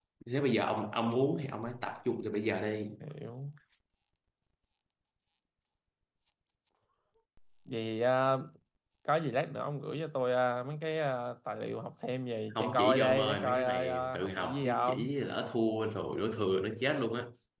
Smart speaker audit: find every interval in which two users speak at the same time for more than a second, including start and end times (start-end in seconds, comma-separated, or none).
12.5-15.1